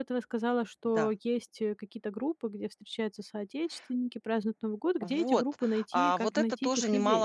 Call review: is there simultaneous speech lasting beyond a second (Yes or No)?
Yes